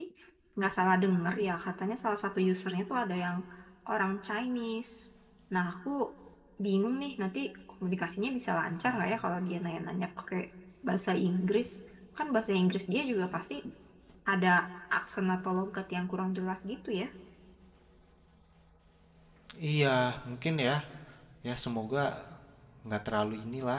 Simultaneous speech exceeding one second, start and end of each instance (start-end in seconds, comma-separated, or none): none